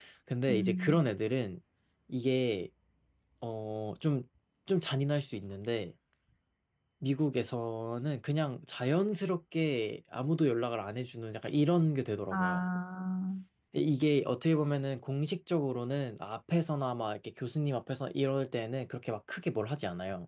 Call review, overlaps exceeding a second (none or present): none